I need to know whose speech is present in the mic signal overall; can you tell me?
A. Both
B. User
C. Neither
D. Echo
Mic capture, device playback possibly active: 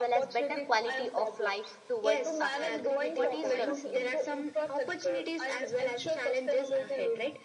A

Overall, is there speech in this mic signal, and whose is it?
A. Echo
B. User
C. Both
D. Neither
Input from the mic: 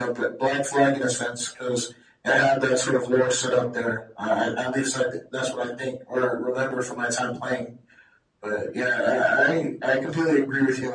A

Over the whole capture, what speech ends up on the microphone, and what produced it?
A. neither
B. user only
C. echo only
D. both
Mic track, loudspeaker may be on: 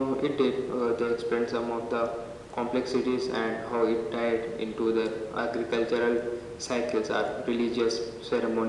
C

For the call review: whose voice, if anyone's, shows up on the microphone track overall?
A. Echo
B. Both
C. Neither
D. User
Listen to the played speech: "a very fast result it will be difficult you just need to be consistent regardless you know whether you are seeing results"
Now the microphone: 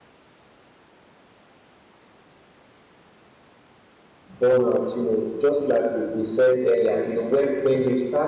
D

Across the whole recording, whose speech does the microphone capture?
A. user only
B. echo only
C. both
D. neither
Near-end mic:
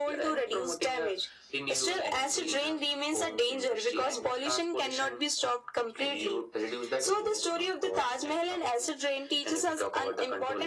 B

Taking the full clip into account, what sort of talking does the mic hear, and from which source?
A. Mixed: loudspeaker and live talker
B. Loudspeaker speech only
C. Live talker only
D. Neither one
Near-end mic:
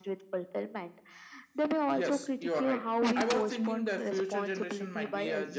B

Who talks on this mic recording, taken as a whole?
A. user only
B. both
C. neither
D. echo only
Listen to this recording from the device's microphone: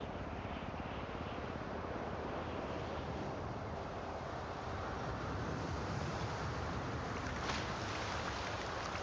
C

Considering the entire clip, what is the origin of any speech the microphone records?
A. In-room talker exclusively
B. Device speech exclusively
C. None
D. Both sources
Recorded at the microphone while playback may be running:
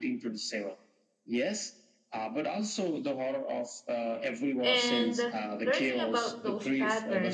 D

